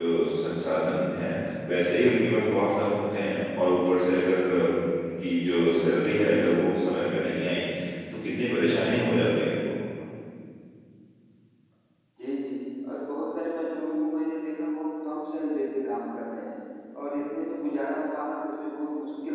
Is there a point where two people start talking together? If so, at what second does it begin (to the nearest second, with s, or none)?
none